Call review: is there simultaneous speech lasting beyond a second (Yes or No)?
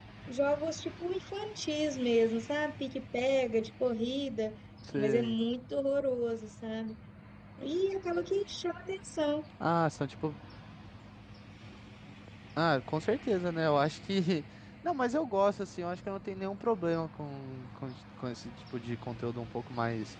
No